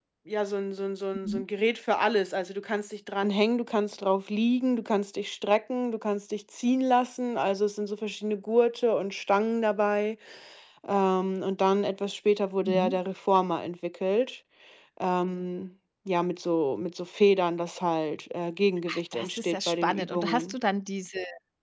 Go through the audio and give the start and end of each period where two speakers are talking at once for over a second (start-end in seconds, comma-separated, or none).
19.1-20.5